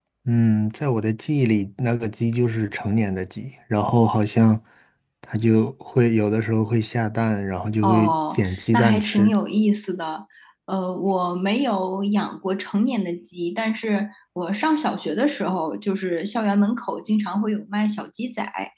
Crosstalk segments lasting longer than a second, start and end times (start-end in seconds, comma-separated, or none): 7.8-9.3